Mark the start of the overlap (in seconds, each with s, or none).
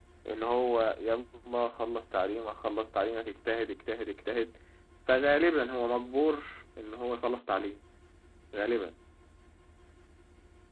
none